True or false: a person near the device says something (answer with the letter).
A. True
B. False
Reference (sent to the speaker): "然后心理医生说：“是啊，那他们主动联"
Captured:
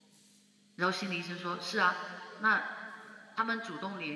B